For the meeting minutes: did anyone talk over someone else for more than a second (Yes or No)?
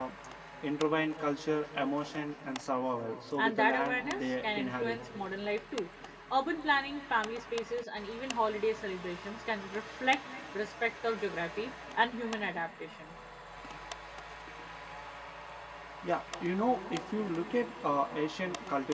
Yes